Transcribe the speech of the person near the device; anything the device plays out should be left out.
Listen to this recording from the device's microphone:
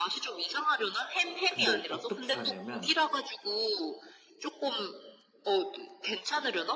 근데 어떻게 하냐면

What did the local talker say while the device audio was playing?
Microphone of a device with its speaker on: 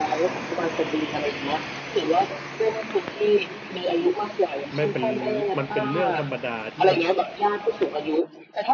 ไม่เป็นมันเป็นเรื่องธรรมดาที่แบบ

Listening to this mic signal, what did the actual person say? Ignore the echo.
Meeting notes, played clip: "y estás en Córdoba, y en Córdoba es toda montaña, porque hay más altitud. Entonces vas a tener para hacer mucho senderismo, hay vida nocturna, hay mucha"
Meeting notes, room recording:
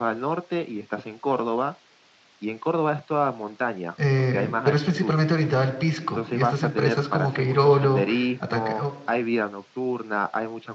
eh, pero es principalmente orientada al pisco. Y estas empresas como Queirolo, Ataca,

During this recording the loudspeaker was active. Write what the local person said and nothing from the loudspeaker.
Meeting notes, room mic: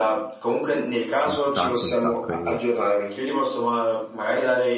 un sacco, un sacco. e-

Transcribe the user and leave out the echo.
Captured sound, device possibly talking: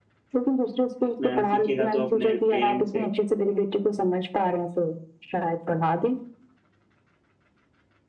मैम सीखेगा तो अपने पेरेंट्स से

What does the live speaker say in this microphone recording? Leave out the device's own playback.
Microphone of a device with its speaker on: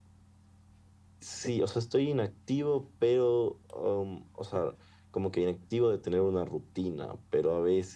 none

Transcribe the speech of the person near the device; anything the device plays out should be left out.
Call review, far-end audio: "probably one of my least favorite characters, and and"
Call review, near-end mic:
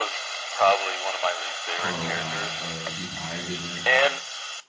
Carl got uh he died in it.

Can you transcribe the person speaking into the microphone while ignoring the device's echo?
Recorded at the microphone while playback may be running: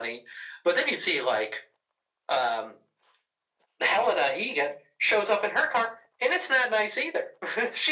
none

